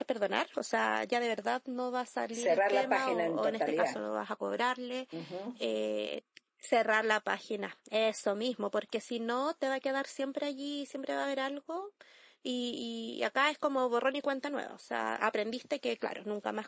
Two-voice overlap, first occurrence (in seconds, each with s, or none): 2.3 s